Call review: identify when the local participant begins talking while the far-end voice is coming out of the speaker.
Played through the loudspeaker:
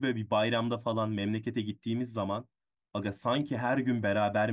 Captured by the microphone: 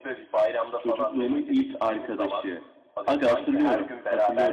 0.8 s

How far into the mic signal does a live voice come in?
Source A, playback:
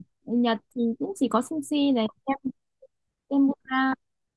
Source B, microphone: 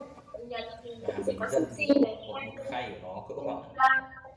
1.0 s

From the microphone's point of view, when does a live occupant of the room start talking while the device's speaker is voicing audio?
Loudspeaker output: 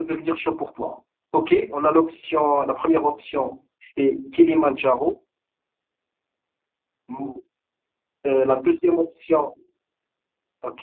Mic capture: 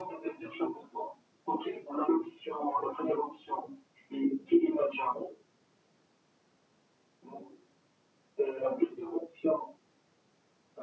none

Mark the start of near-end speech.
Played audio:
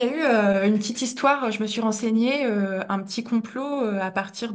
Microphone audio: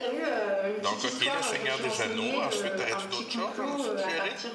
0.8 s

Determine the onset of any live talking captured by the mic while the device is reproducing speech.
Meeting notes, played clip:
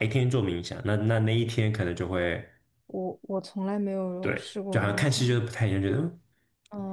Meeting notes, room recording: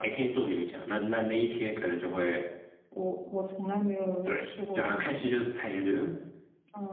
none

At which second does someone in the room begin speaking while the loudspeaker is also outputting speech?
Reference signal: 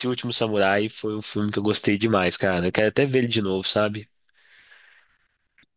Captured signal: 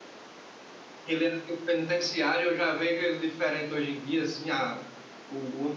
1.0 s

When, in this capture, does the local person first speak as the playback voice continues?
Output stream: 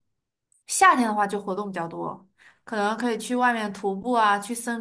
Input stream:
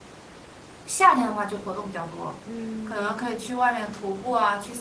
2.4 s

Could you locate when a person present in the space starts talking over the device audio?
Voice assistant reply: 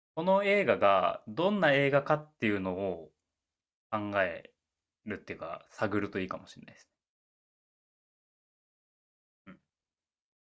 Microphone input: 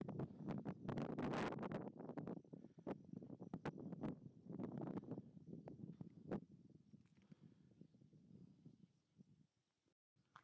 none

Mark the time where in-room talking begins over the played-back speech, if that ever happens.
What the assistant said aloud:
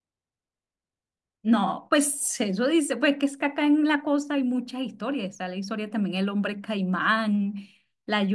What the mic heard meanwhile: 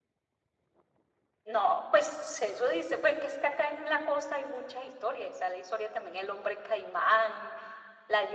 none

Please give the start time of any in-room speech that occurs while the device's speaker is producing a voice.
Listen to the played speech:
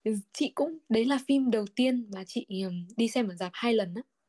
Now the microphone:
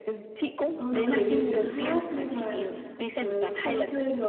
0.7 s

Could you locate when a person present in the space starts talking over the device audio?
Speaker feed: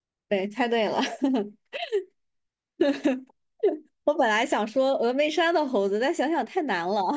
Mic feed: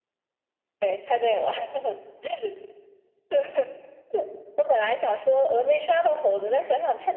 none

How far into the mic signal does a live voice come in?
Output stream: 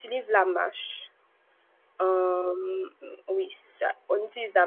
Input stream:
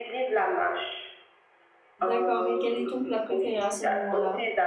2.0 s

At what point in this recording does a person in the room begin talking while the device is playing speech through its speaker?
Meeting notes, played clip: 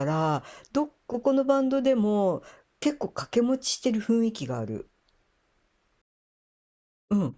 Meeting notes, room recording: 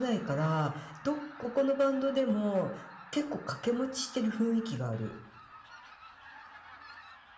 none

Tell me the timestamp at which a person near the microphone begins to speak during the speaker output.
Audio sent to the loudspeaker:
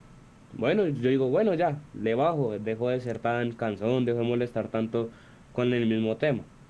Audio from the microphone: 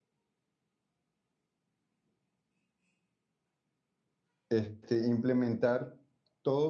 4.5 s

